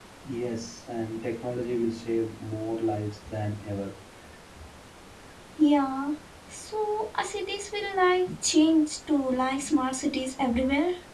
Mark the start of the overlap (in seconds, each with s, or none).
none